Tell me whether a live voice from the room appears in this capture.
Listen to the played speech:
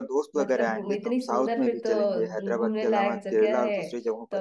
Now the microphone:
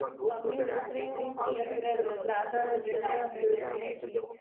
Yes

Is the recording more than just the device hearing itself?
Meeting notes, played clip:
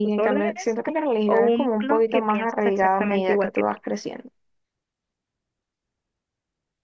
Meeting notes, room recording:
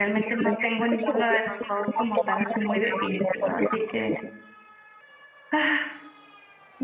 Yes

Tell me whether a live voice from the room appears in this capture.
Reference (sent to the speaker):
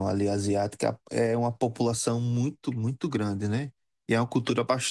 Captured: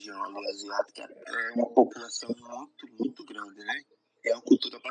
No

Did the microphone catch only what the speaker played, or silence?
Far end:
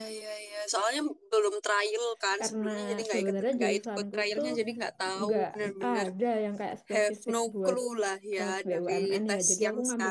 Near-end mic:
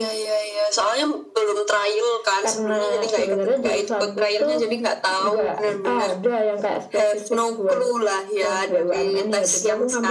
Yes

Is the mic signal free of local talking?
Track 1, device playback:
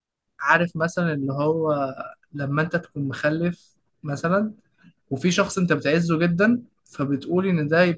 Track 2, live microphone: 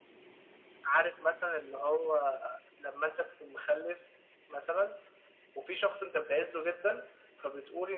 Yes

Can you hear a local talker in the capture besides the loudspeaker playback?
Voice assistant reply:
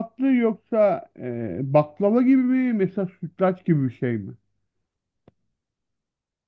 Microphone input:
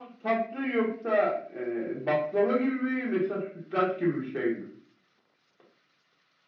No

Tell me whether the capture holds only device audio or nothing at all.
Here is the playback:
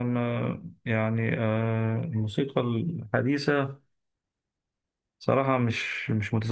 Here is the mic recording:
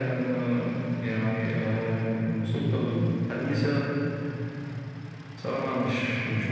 Yes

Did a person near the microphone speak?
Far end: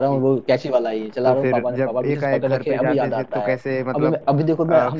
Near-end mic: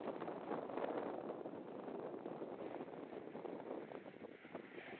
No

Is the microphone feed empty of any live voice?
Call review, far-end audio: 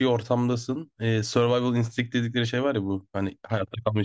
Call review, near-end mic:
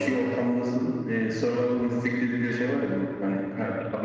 Yes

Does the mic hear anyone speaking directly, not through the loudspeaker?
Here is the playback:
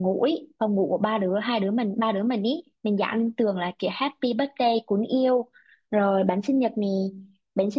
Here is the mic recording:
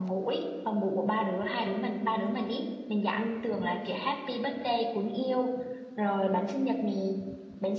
No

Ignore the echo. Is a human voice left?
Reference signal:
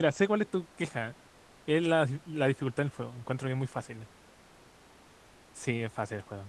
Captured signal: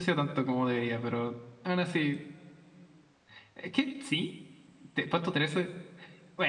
Yes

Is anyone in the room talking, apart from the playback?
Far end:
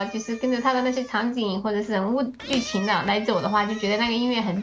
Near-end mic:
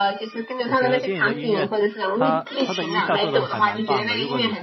Yes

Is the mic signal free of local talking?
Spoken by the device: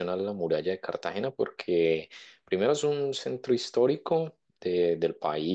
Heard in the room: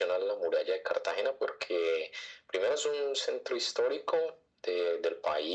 Yes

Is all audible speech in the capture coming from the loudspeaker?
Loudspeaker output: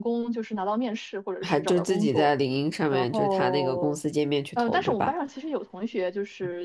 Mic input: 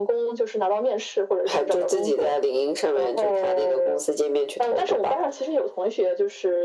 Yes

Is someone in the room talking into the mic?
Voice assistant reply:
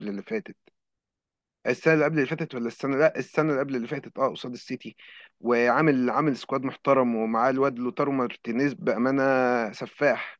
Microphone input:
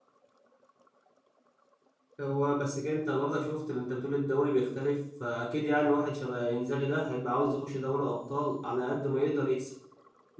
Yes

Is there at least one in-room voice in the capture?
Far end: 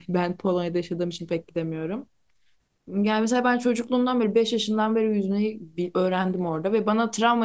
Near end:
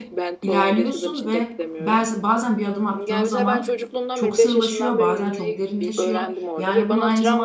Yes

